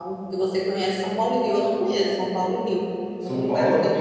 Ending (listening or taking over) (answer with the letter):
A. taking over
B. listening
A